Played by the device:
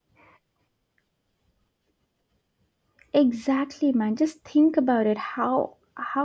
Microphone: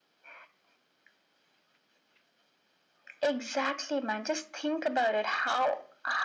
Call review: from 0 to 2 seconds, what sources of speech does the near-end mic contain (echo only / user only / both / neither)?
neither